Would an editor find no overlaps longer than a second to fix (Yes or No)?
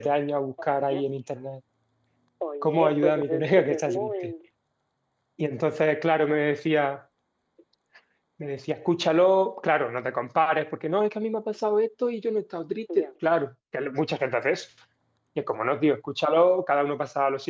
No